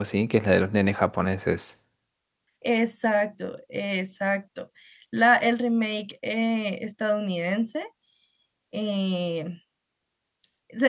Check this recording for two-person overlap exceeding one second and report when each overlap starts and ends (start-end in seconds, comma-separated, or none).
none